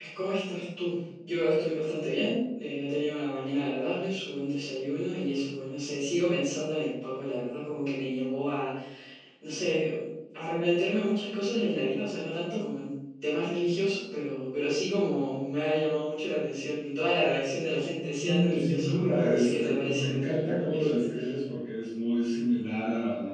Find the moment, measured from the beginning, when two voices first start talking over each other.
18.1 s

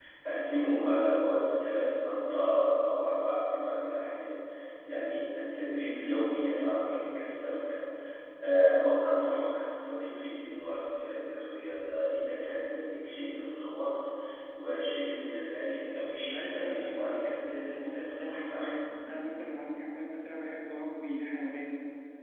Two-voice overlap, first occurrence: 16.2 s

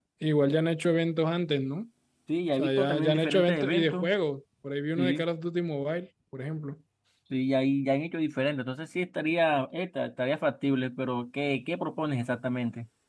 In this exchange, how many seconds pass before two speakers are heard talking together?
2.5 s

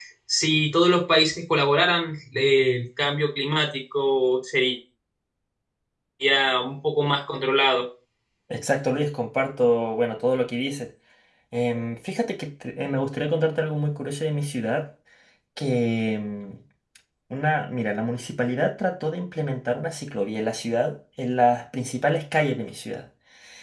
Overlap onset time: none

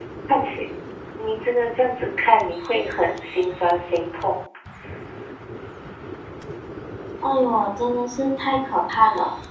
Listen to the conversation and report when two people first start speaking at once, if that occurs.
none

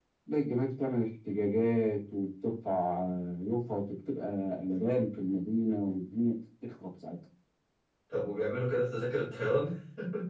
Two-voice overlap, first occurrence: none

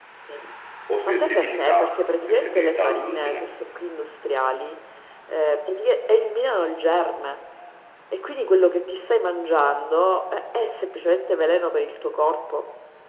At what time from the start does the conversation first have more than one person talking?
1.1 s

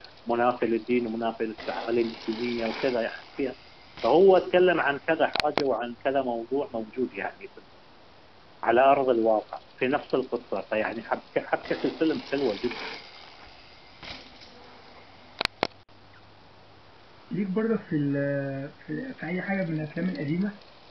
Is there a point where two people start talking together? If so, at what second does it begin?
none

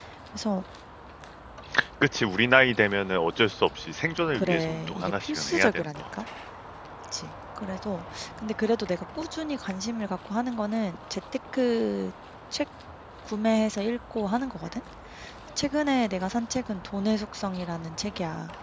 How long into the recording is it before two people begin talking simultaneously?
4.3 s

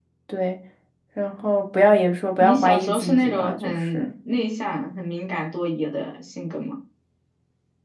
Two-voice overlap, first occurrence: 2.4 s

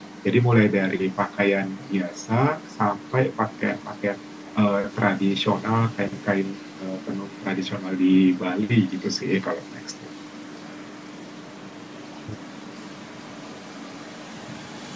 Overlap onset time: none

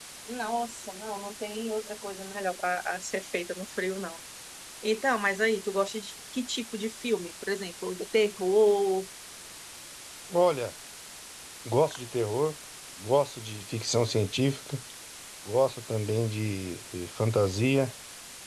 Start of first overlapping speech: none

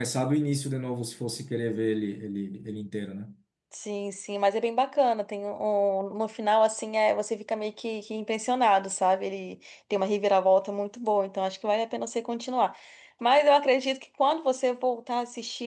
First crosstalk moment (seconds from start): none

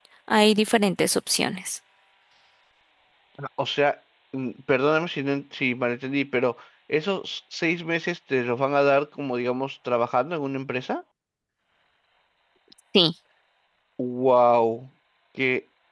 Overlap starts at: none

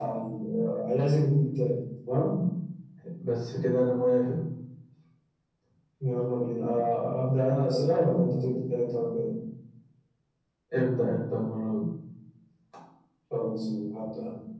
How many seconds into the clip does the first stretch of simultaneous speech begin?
none

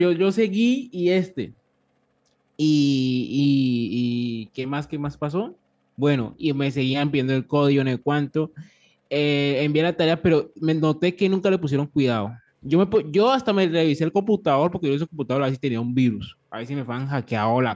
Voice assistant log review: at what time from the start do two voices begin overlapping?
none

